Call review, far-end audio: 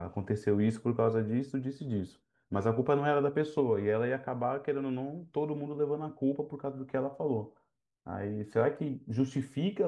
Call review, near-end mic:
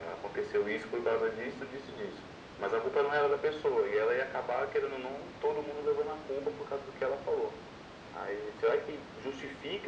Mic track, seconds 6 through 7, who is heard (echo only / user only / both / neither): echo only